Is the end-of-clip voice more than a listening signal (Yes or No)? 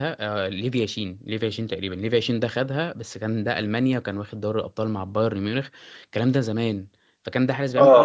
No